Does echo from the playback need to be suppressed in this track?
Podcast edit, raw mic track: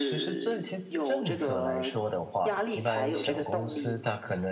Yes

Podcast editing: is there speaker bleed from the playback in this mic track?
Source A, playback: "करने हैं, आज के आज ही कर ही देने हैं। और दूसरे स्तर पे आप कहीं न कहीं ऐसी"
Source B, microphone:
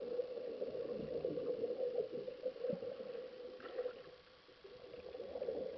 No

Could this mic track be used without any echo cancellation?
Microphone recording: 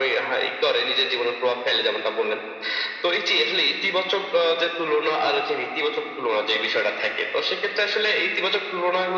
No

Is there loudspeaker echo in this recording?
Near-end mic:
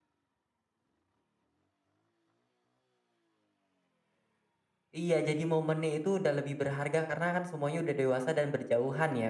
No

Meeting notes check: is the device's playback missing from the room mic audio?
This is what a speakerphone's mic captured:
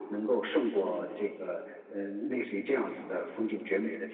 No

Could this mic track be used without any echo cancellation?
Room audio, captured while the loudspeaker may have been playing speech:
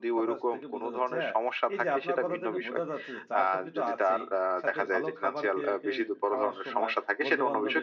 No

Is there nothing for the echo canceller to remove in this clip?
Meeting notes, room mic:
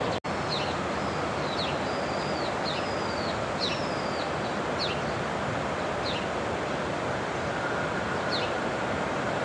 Yes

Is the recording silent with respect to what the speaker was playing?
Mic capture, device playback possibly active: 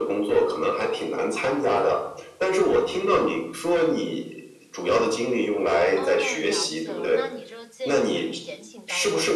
No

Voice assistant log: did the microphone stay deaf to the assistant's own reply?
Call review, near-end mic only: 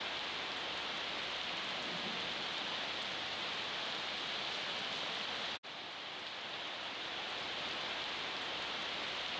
Yes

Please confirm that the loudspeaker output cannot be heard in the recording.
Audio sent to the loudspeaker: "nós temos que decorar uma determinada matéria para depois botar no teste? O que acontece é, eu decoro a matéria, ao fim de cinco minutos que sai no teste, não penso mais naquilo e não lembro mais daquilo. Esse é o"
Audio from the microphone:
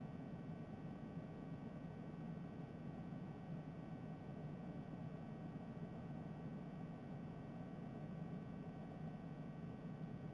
Yes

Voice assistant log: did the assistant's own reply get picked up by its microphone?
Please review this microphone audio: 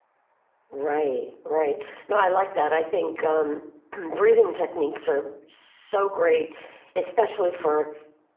No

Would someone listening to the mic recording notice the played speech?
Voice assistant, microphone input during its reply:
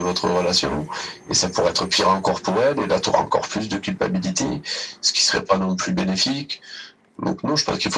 Yes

